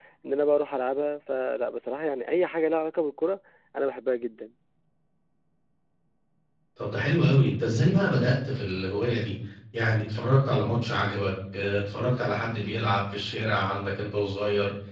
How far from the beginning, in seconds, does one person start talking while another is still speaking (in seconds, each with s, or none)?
none